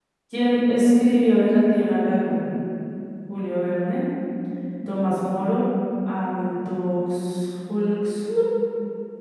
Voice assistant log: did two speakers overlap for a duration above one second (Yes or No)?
No